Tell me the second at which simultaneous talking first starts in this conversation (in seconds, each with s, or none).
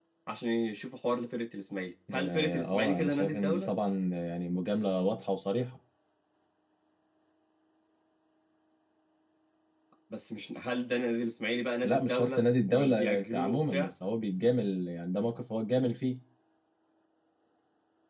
2.1 s